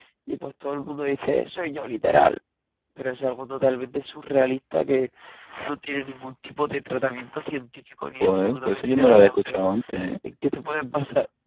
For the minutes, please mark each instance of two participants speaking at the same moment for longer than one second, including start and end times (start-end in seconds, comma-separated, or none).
8.2-9.6